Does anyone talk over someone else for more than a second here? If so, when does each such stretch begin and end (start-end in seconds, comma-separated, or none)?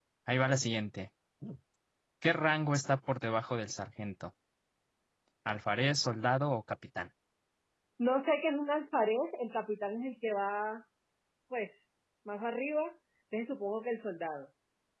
none